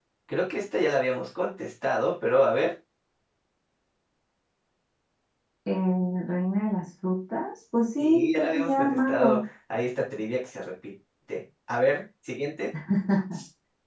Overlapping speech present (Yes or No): Yes